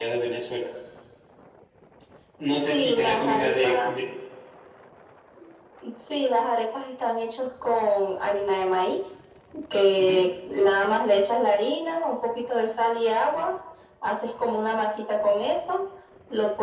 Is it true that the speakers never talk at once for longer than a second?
No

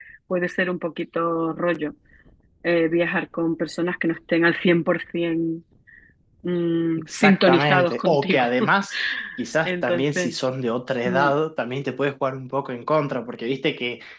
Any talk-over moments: Yes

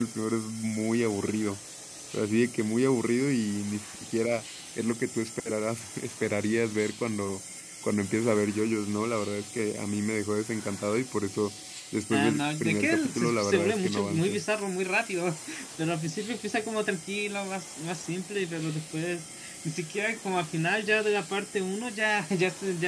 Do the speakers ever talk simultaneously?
Yes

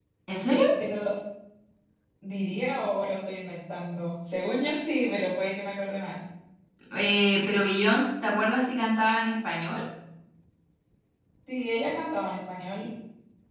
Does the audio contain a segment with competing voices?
No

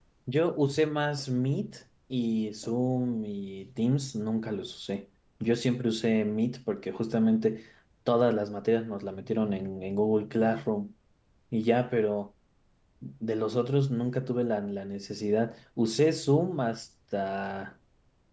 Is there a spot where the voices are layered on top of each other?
No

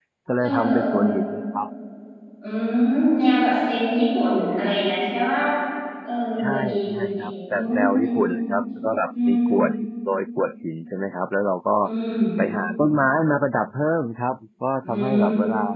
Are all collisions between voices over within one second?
No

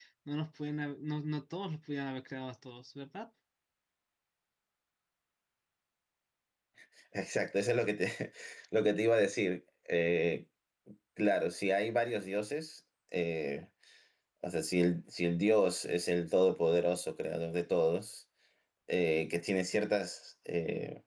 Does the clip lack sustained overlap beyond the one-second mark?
Yes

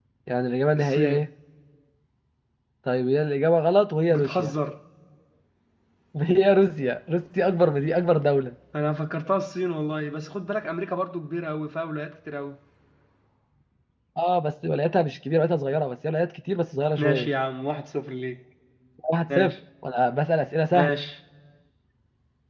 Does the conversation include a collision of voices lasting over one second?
No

